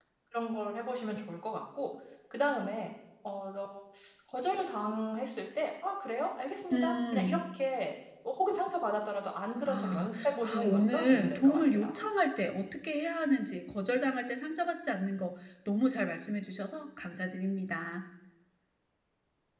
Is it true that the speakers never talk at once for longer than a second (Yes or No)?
No